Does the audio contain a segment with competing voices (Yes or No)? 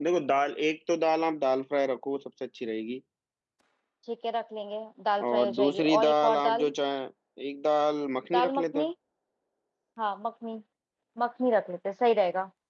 Yes